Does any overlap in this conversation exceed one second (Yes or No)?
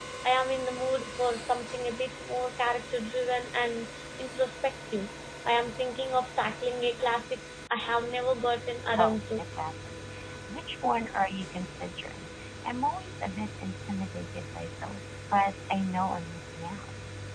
No